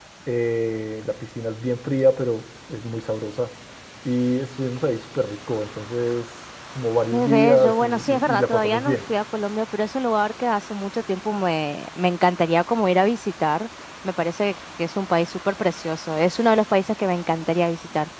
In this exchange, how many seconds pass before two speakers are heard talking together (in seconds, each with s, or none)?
7.1 s